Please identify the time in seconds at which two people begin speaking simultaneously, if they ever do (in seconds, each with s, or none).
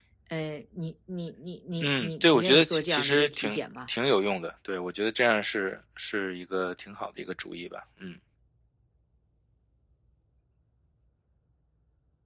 1.8 s